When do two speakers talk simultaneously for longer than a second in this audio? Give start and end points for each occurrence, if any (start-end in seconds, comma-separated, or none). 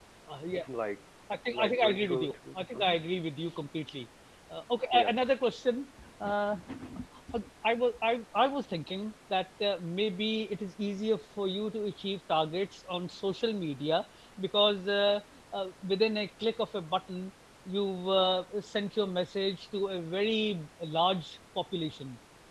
1.5-3.0